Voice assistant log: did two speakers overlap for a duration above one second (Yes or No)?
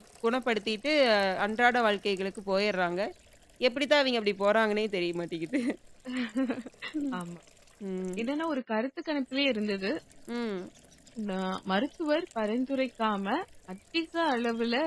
No